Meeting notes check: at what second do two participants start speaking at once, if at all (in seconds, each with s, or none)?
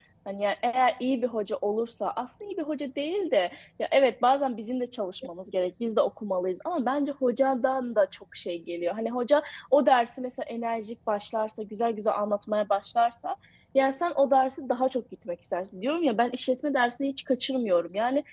none